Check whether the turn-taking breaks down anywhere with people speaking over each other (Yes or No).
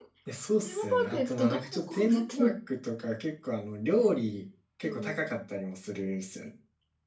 Yes